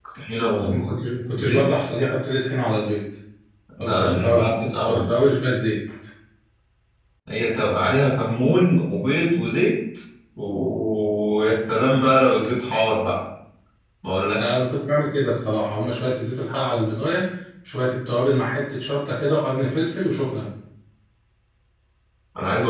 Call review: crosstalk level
present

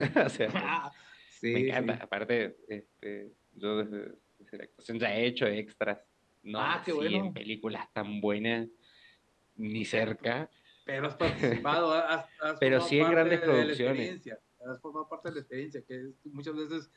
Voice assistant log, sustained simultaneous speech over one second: present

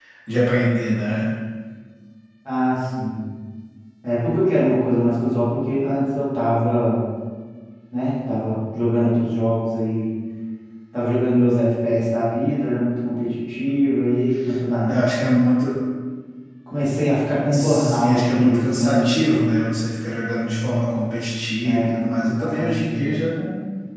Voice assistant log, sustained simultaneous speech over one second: present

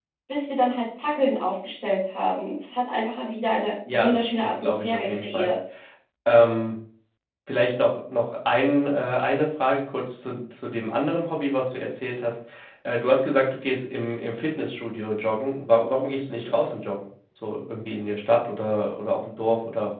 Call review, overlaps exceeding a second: present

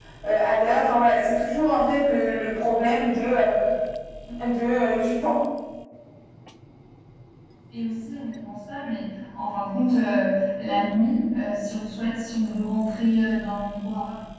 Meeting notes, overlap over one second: none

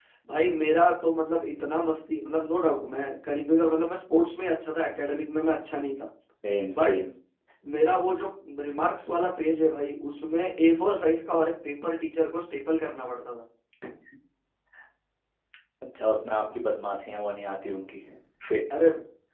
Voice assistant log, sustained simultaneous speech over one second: none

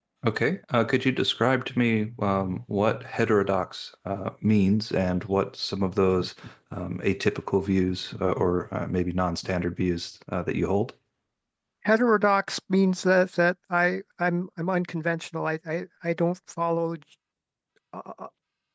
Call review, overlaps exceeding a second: none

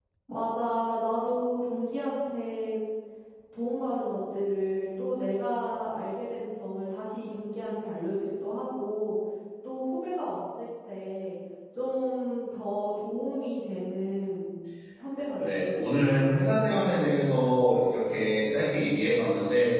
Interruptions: present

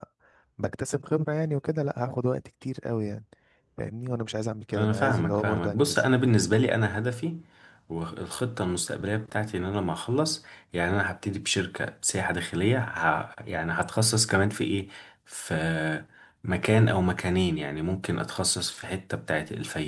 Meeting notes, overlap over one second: present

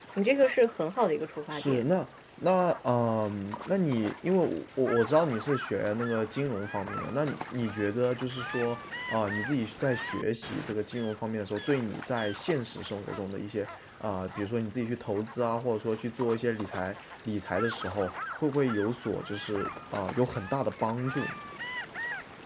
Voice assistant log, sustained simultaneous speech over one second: none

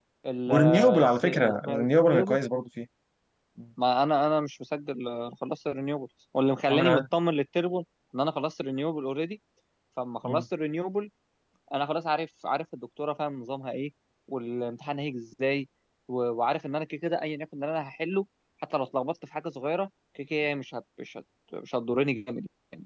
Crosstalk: present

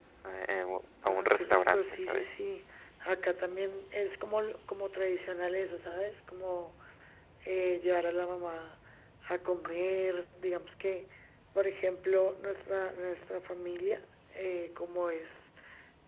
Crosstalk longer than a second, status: present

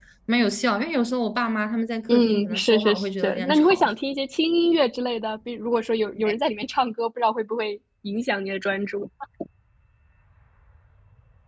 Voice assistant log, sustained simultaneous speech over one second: present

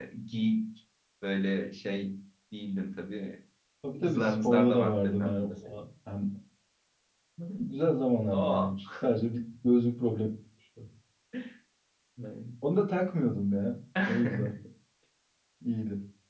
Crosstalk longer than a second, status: present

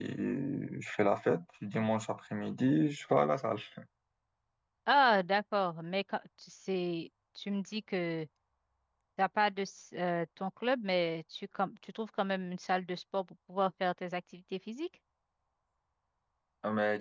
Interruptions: none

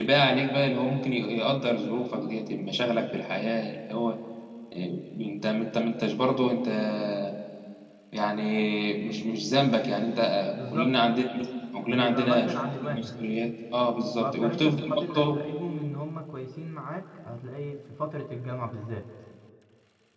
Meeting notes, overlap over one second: present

